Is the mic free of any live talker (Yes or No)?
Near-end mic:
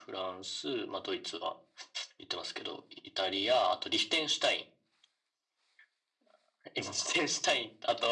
Yes